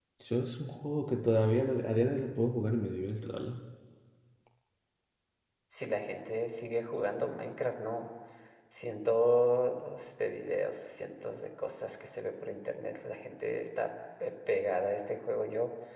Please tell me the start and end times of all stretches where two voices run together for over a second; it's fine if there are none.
none

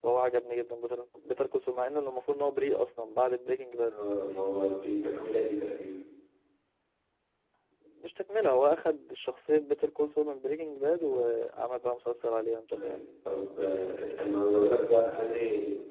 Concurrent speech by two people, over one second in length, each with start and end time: none

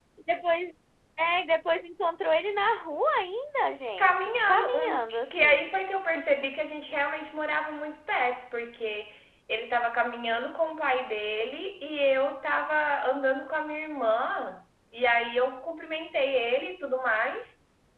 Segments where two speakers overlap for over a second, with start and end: 4.0-5.7

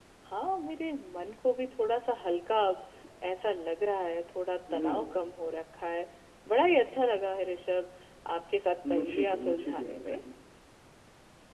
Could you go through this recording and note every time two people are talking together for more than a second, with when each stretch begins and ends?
8.9-10.2

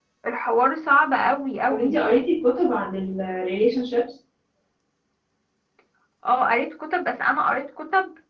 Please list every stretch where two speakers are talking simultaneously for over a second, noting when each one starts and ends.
none

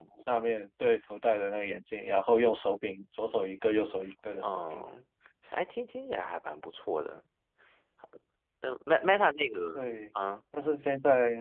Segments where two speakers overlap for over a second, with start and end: none

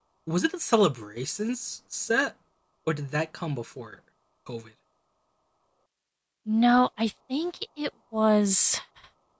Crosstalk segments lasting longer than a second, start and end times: none

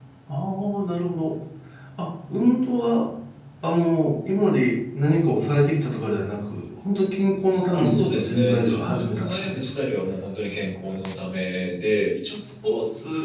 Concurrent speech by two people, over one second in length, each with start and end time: 7.7-9.7

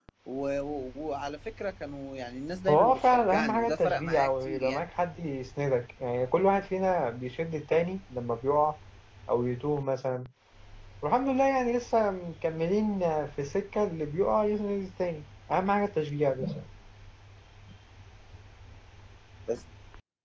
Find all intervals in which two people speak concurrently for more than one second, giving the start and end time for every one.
2.7-4.8

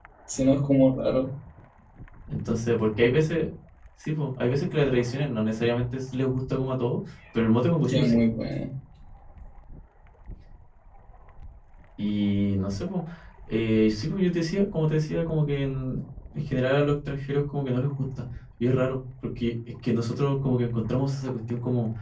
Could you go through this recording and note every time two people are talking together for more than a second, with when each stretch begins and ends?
none

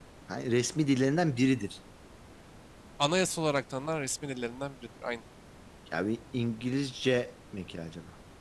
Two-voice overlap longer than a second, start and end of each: none

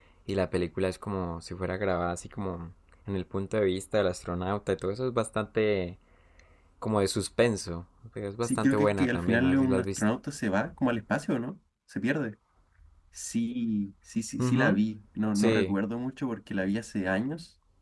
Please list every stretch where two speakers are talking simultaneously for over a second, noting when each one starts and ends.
8.4-10.0

